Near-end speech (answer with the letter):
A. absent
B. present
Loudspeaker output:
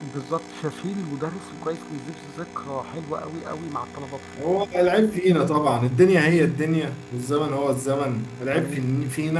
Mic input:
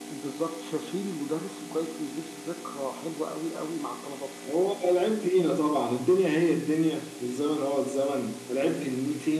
A